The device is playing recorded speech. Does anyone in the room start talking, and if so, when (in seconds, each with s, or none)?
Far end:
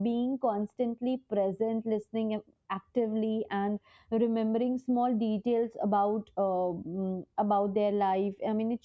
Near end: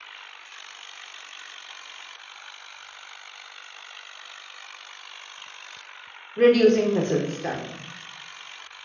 6.3 s